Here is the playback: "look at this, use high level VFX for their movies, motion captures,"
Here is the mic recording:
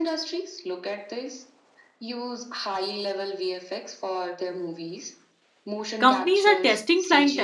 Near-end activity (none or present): present